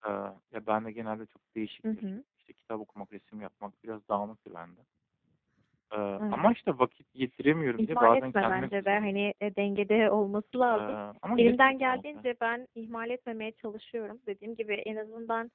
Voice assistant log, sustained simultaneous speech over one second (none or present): present